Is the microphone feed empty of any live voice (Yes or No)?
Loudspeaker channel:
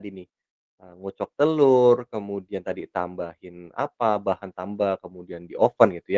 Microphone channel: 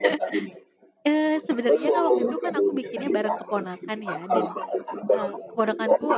No